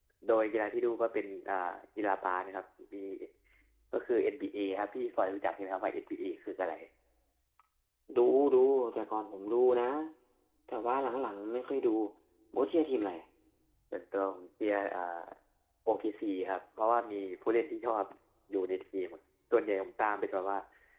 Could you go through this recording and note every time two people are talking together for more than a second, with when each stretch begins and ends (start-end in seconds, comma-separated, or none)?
none